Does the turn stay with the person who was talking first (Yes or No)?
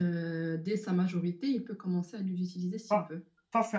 No